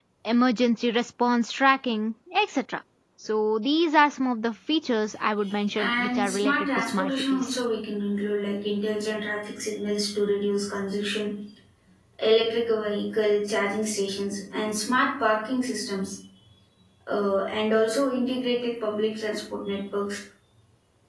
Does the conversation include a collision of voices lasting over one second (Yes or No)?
Yes